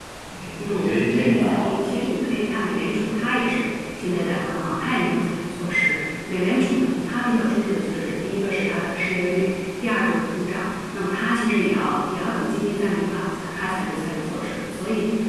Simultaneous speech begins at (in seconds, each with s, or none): 0.6 s